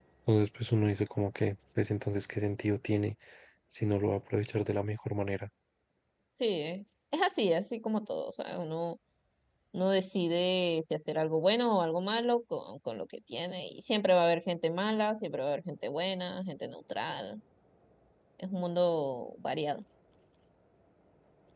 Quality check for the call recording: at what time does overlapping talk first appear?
none

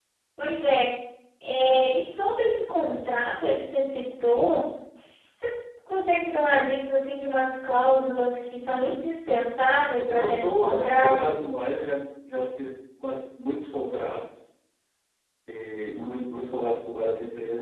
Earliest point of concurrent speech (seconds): 10.1 s

